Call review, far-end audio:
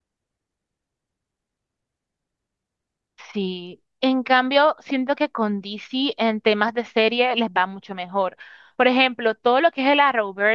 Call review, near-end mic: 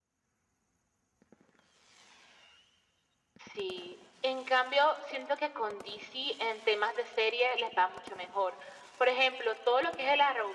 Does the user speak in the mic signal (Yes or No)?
No